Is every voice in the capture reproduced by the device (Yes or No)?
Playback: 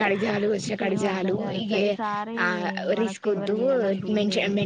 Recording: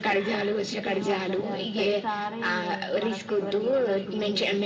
Yes